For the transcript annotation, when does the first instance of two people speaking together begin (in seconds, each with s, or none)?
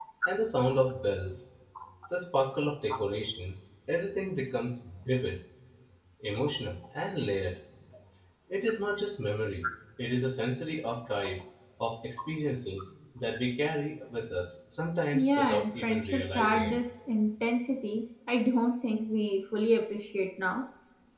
15.1 s